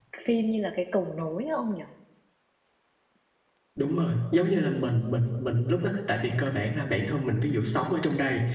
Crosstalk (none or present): none